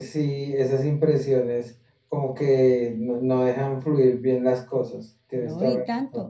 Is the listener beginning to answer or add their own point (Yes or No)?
Yes